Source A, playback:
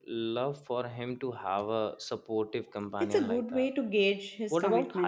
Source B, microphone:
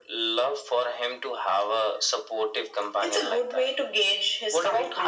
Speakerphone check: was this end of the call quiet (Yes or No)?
Yes